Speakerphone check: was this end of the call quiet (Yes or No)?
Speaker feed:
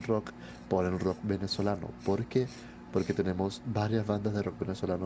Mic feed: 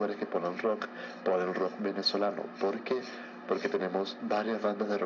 Yes